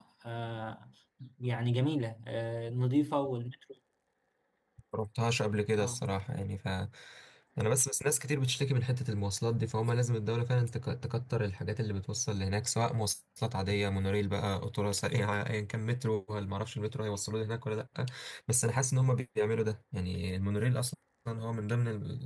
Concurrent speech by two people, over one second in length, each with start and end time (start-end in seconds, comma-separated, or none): none